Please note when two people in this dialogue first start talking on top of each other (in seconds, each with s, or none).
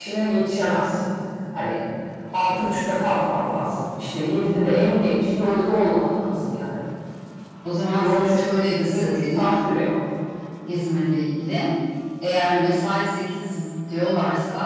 8.0 s